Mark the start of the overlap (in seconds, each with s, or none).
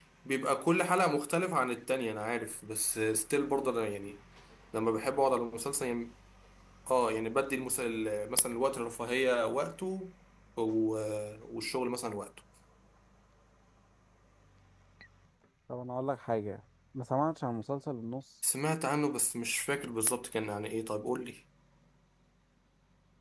none